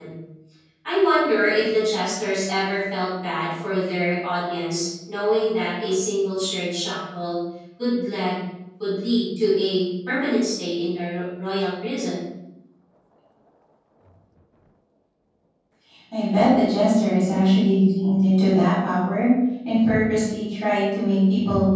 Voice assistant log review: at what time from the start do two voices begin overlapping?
none

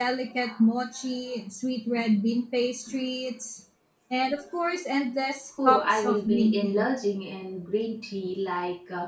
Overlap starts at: 5.6 s

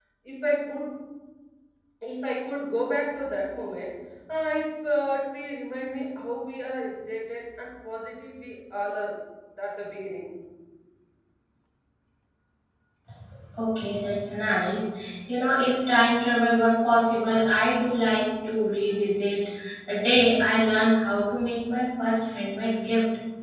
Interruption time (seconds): none

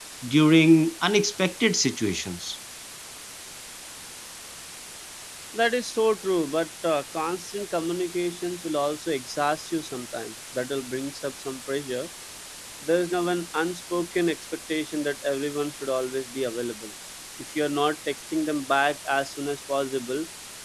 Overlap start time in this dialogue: none

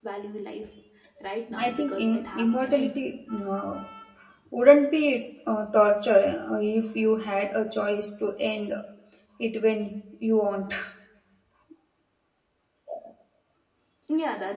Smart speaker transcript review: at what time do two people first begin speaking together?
1.6 s

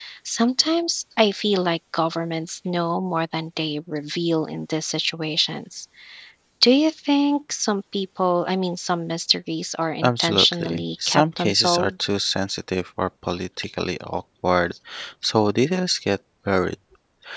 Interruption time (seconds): 10.0 s

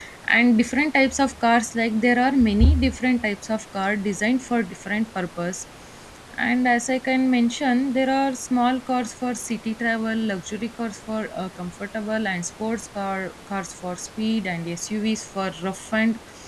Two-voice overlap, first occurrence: none

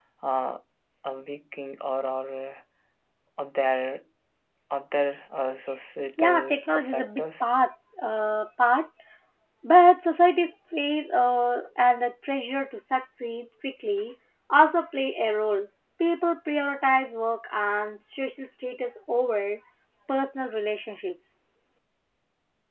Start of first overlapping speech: 6.2 s

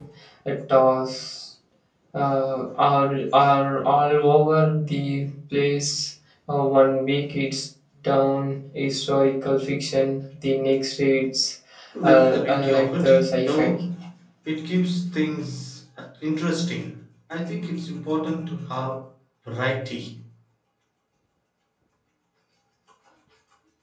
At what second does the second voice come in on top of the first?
12.0 s

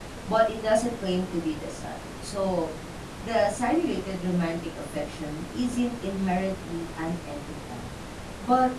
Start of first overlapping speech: none

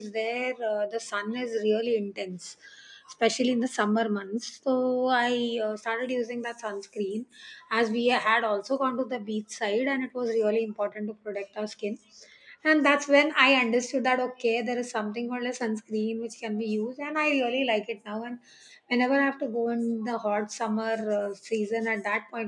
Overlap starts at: none

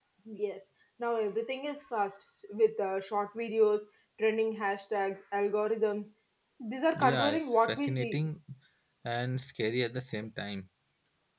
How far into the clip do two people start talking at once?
6.9 s

